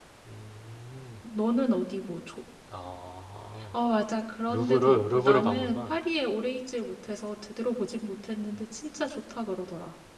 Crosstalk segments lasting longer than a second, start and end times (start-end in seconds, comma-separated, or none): 4.5-6.0